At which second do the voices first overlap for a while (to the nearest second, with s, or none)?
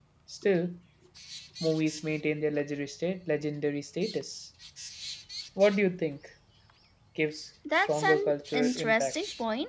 8 s